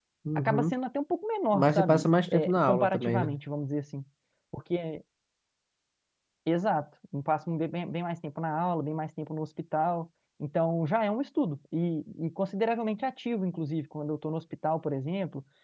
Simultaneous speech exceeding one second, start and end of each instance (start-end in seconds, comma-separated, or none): 1.5-3.3